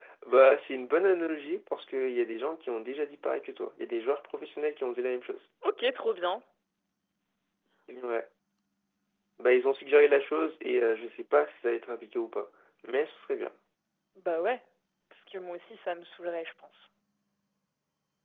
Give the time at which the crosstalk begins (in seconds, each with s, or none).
none